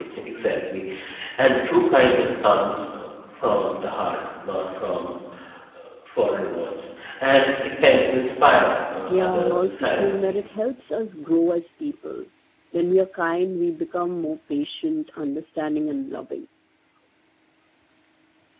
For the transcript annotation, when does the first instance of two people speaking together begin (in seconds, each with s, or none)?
9.1 s